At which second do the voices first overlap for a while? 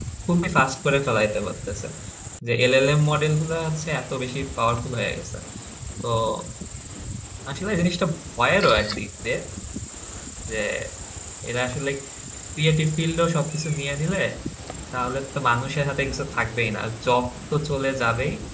none

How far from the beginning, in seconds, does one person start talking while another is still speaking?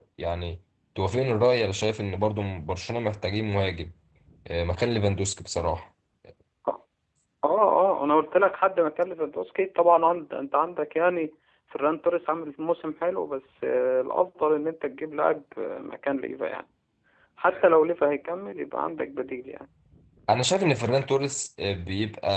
none

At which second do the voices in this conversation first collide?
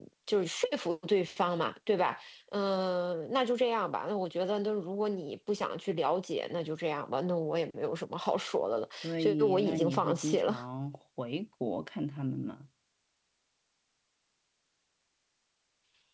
9 s

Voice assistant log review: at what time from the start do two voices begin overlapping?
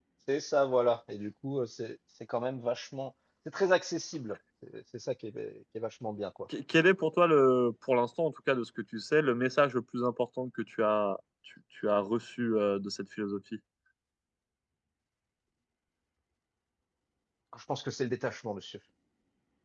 none

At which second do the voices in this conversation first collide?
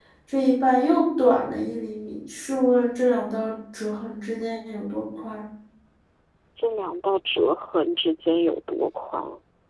none

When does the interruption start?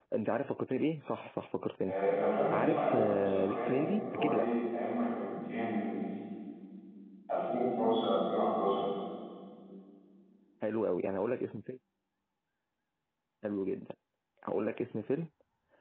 3 s

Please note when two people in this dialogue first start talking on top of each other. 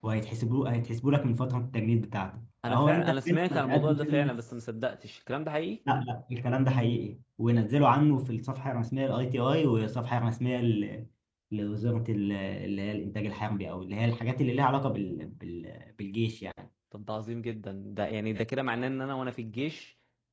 3 s

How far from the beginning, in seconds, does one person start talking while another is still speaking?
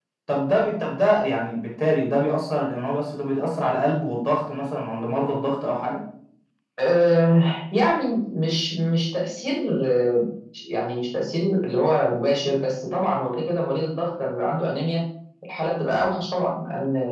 none

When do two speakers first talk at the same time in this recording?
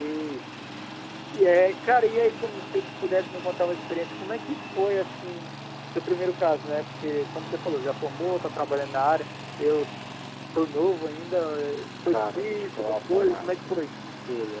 12 s

